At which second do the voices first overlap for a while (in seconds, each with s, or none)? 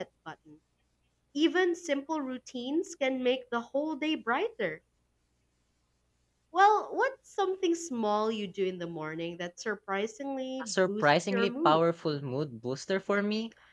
10.6 s